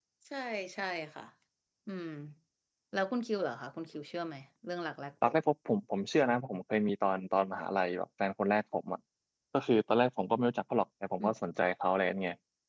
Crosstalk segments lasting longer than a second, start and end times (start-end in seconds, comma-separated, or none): none